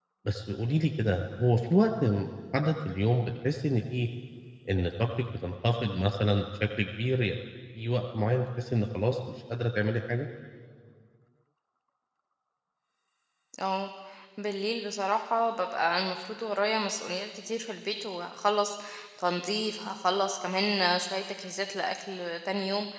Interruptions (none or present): none